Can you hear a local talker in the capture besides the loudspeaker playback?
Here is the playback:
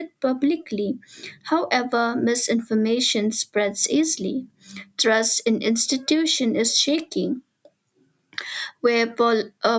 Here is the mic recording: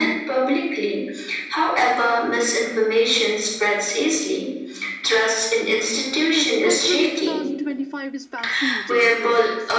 Yes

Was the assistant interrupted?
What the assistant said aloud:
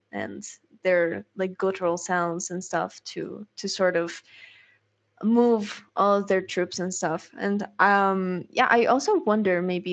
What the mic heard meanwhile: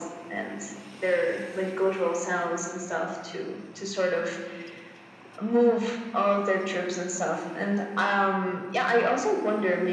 No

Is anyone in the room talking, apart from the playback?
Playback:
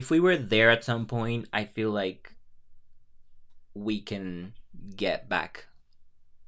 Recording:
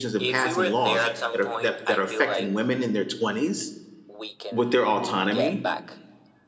Yes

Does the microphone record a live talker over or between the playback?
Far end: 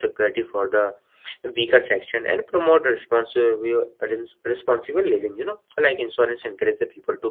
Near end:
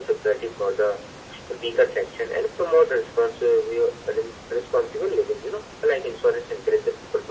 No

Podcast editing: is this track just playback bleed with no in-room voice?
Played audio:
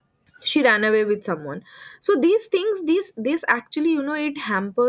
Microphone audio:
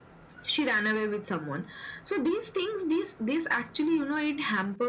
Yes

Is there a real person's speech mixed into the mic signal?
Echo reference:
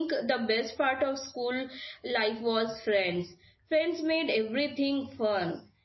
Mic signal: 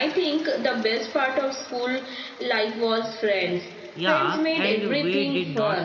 Yes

